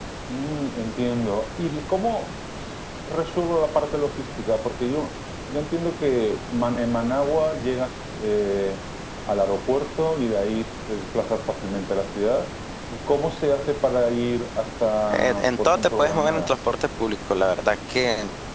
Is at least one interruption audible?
Yes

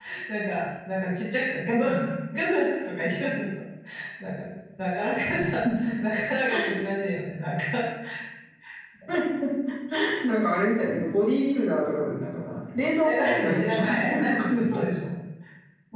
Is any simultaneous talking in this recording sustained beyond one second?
Yes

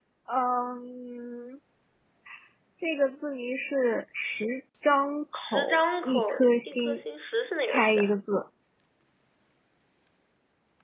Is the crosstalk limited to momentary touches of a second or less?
No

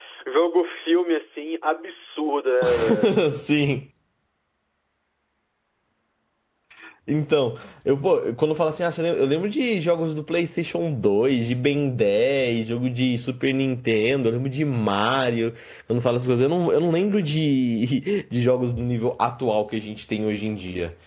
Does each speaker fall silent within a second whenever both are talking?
Yes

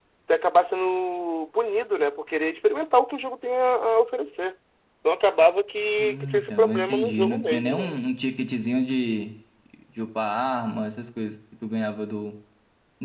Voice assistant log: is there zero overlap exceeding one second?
No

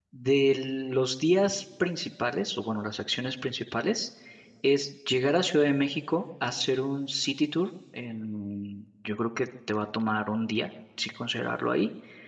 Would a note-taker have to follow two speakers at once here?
No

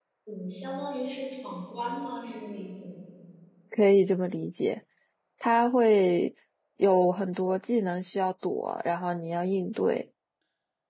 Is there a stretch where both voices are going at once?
No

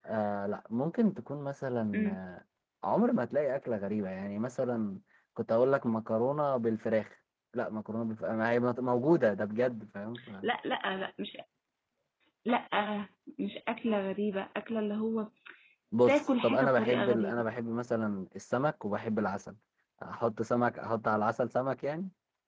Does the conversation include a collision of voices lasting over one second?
Yes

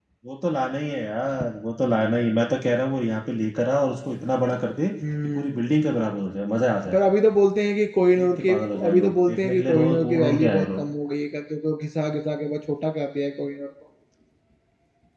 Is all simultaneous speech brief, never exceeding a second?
No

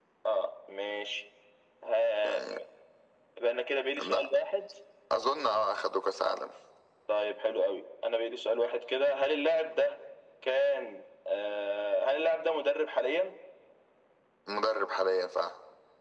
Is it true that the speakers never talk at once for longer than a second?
Yes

